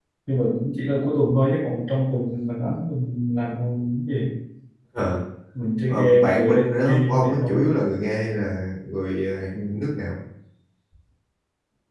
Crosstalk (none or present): present